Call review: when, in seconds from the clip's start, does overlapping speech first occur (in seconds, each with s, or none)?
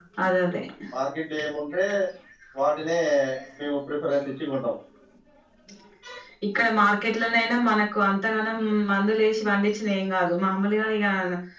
none